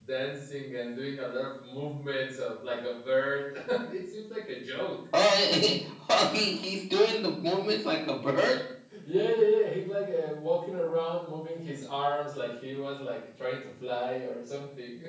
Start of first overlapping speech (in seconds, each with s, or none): none